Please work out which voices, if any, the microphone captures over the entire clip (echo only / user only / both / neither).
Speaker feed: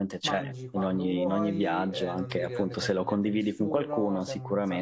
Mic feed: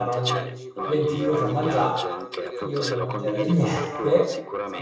both